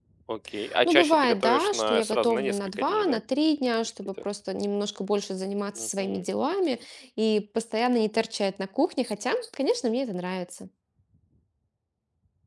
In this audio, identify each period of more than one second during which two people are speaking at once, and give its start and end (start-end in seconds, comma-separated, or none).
0.8-3.2